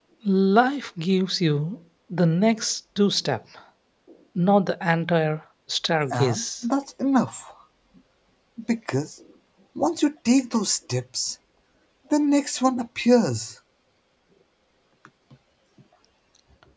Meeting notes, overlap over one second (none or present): none